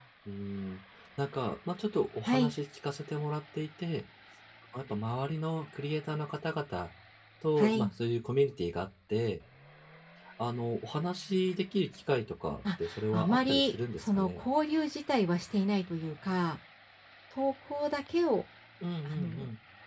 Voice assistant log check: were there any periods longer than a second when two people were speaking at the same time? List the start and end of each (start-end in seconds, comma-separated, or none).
12.8-14.4